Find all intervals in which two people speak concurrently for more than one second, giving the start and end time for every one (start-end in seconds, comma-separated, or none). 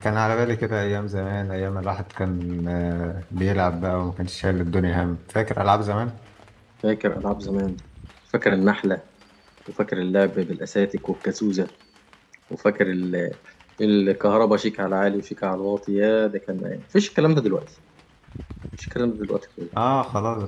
none